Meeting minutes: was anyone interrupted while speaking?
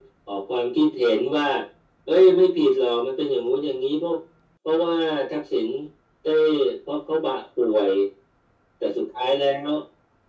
No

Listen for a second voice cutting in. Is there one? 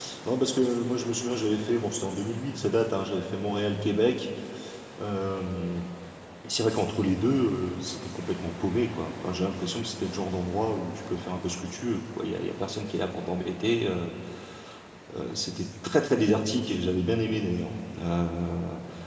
No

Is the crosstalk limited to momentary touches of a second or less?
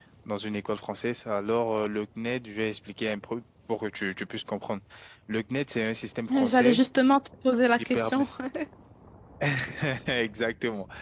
Yes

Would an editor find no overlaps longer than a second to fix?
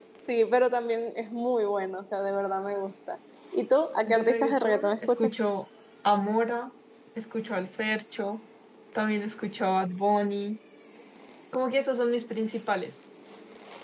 No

